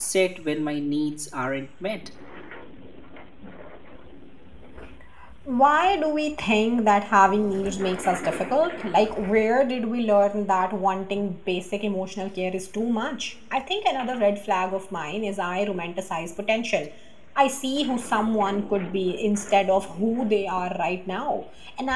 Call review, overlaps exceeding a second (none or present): none